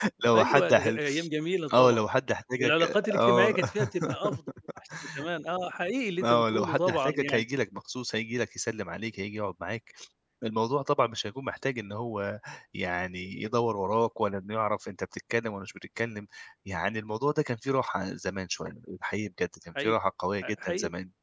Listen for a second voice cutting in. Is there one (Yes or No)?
Yes